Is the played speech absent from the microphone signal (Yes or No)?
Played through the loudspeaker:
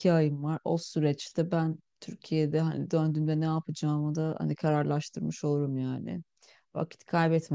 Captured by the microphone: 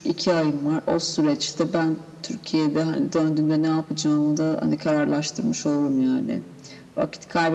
No